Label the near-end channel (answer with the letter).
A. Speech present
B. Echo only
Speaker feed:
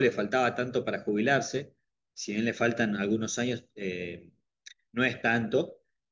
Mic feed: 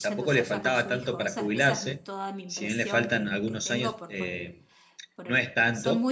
A